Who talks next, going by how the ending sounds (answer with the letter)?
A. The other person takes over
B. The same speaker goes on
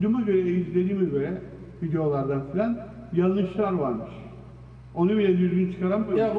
A